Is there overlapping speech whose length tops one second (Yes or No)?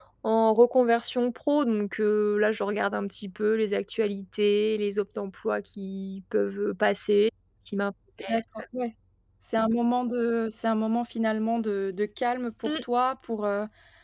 No